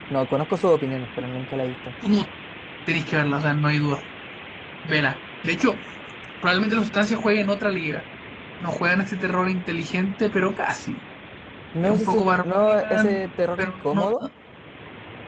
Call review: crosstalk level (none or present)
present